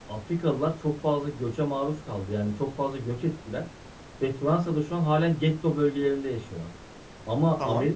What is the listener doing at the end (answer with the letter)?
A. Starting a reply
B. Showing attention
B